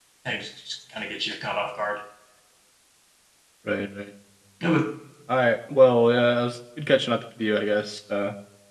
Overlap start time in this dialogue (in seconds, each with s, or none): none